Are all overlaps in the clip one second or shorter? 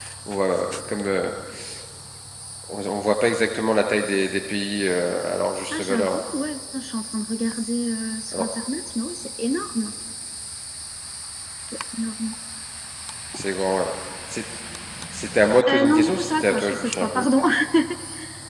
No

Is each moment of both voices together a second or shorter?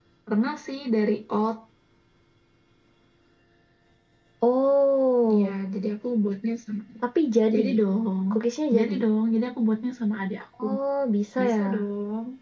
Yes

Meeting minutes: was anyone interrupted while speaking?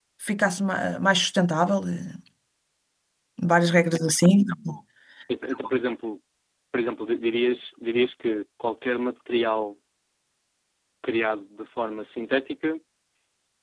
No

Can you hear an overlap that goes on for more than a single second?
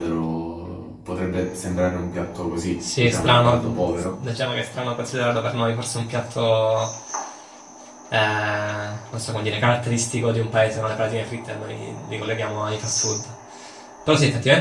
Yes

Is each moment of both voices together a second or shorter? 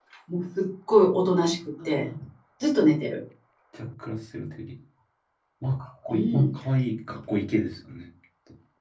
Yes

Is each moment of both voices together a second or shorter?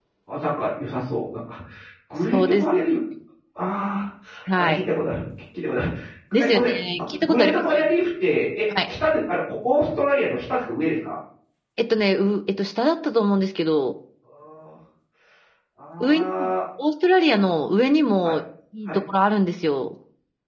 No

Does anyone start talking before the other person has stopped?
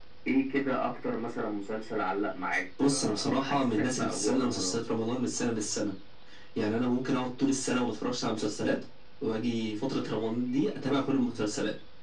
Yes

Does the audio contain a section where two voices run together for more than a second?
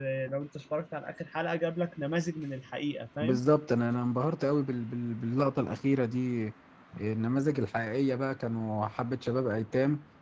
No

